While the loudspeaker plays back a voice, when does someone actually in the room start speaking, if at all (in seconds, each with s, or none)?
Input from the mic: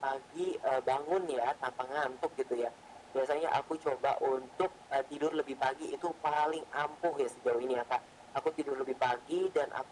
none